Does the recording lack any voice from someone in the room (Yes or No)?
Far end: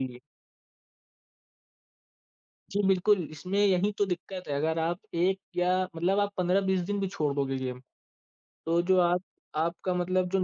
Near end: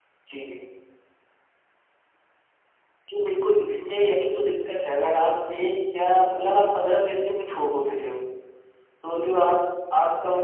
Yes